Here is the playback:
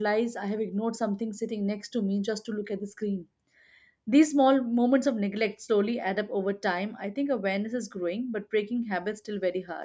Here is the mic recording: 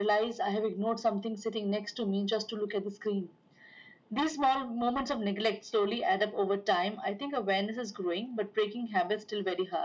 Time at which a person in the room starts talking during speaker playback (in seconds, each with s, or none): none